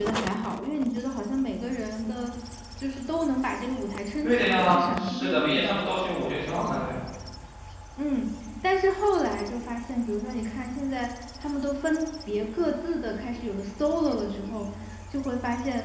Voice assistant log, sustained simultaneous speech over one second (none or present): present